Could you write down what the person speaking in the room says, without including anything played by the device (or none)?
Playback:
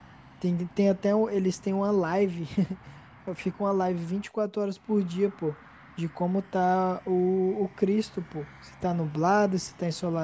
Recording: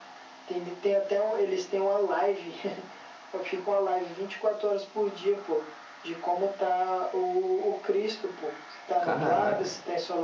Caraca,